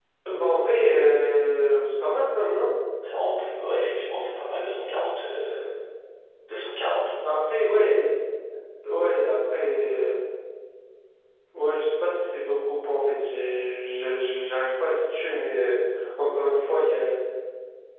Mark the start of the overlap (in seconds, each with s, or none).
none